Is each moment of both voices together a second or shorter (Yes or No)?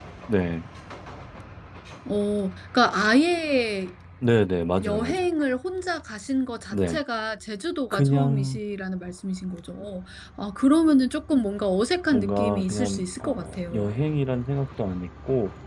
No